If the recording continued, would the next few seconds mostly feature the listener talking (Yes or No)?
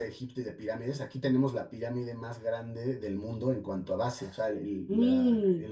No